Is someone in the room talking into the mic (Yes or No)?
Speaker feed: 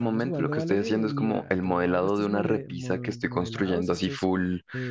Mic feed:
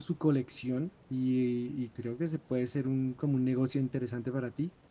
Yes